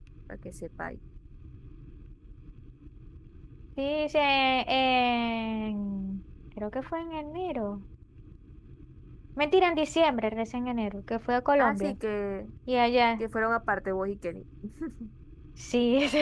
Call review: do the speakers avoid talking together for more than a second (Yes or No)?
Yes